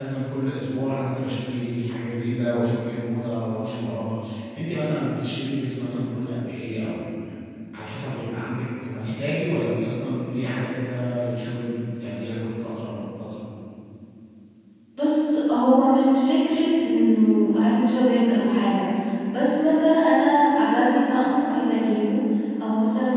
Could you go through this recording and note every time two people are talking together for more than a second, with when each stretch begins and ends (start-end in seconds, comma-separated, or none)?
none